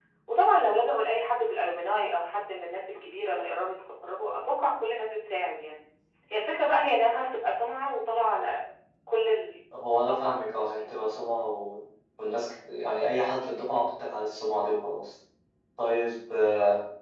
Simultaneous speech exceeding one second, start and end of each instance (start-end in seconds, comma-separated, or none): 9.9-11.1